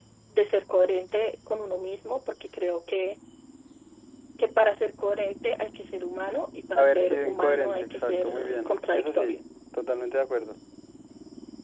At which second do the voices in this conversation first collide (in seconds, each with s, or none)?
6.8 s